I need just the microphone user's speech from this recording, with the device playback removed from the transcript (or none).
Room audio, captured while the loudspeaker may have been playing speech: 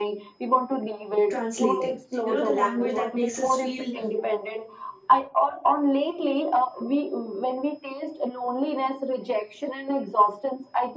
translating you know the language that makes us feel